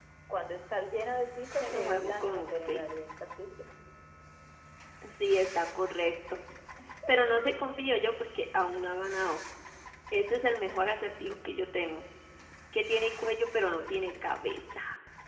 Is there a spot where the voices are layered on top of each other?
Yes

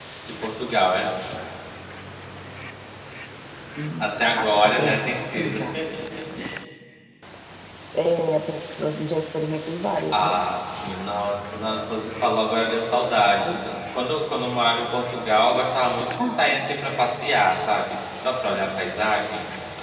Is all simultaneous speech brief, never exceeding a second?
No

